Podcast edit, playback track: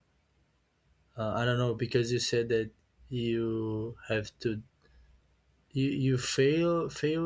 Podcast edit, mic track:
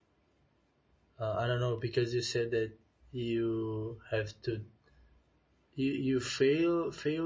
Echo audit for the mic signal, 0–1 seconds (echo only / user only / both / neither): neither